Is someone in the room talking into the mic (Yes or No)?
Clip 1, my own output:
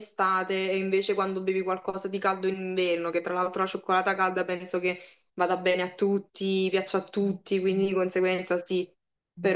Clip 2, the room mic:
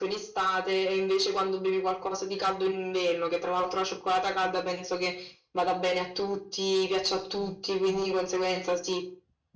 No